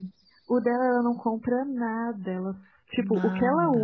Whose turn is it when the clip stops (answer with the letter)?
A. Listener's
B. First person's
B